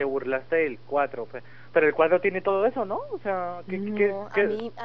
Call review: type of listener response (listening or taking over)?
taking over